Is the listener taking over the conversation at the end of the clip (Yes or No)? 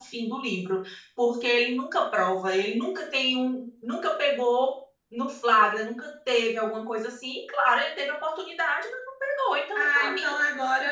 Yes